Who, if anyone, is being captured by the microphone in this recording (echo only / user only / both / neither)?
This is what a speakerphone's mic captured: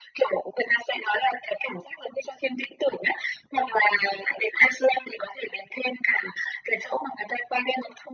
echo only